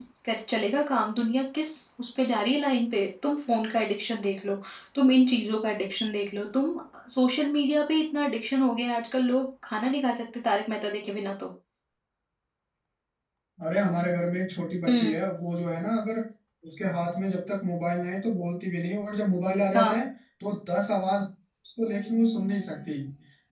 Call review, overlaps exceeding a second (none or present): none